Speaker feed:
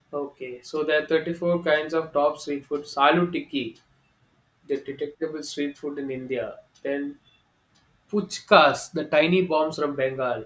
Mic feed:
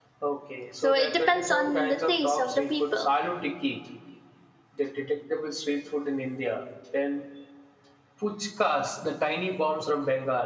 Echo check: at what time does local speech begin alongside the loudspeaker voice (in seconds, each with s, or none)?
0.7 s